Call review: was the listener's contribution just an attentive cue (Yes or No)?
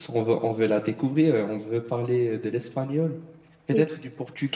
Yes